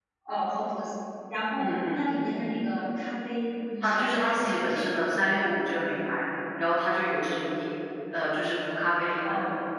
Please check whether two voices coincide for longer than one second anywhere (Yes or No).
Yes